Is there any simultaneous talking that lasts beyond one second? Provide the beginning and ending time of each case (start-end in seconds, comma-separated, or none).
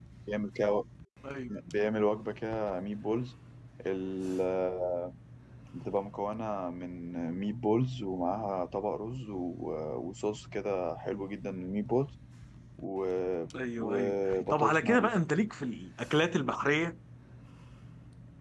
13.8-15.1